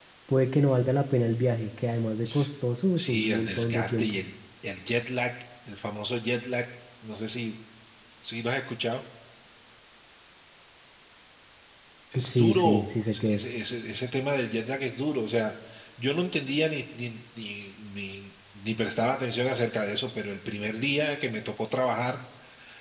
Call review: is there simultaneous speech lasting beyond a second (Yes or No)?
Yes